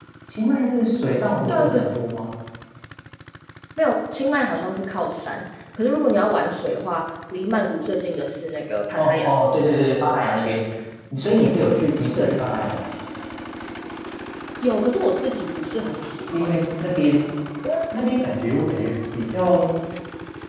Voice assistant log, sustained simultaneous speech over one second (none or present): none